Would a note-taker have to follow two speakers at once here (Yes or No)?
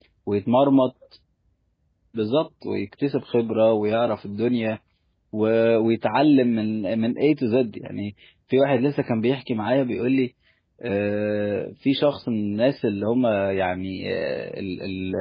No